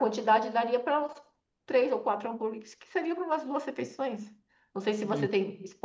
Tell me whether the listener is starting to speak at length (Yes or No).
No